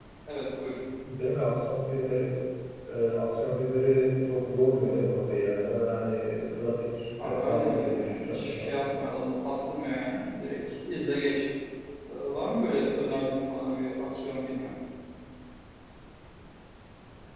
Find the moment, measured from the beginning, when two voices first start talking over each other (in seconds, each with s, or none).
7.2 s